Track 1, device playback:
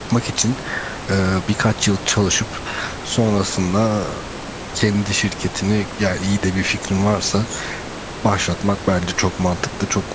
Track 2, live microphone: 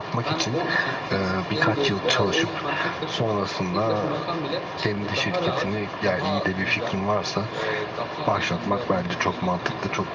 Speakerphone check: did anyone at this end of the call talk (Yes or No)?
Yes